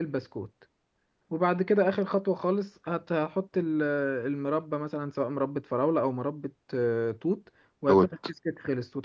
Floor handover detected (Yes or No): No